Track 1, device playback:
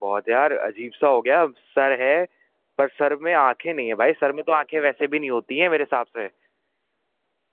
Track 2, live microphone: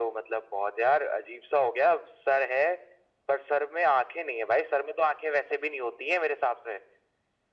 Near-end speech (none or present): none